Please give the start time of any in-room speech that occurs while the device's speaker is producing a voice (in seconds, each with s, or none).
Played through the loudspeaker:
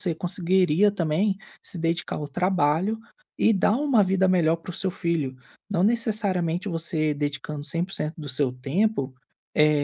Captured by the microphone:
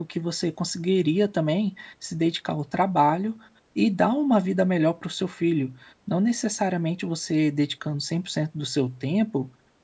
none